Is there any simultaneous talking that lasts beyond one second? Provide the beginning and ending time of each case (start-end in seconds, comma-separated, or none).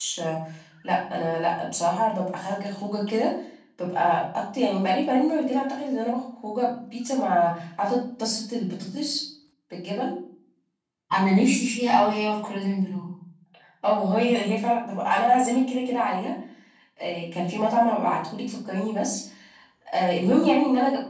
none